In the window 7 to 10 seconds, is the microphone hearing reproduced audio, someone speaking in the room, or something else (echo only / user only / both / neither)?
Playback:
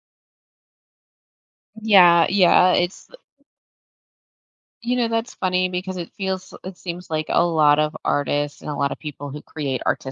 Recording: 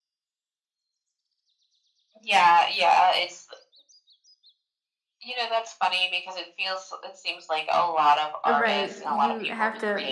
both